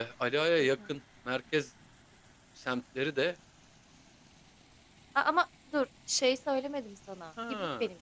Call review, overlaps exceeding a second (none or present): none